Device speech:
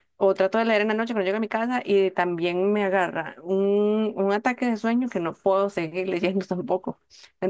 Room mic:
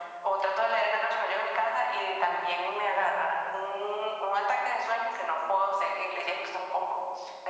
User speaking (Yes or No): No